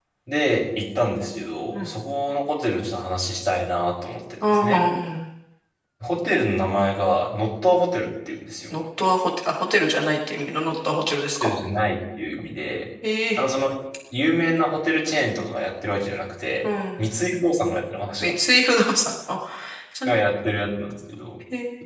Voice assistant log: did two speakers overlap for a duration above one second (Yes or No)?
No